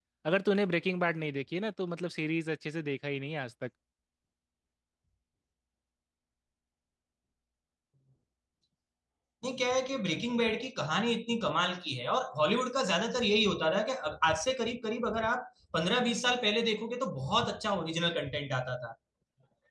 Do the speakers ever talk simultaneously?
No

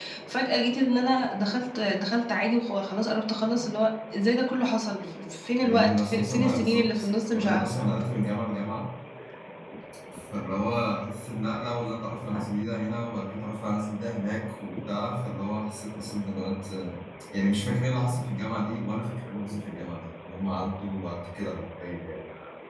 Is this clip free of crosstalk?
No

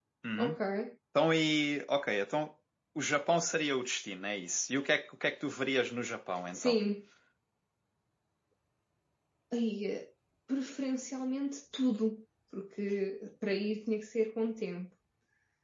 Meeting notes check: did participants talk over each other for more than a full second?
No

